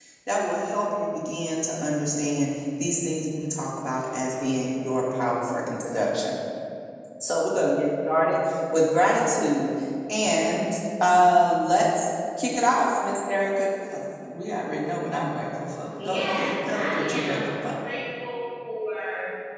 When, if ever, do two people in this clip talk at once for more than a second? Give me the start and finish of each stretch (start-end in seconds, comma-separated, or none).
16.0-17.8